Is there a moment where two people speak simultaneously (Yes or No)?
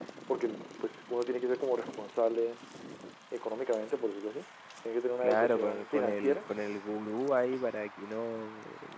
Yes